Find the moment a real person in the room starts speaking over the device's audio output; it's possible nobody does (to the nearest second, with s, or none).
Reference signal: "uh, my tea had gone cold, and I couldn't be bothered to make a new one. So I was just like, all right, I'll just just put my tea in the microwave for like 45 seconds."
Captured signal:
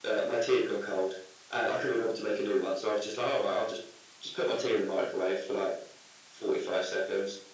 none